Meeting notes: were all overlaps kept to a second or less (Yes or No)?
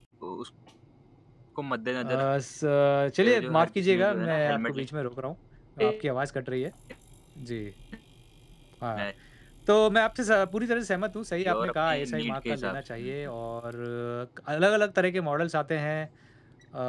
No